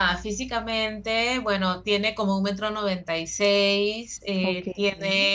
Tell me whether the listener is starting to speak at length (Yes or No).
No